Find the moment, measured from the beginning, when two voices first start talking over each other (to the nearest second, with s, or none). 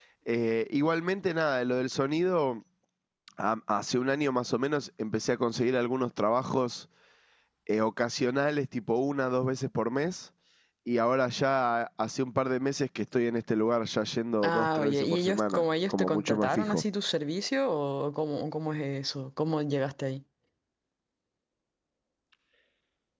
14 s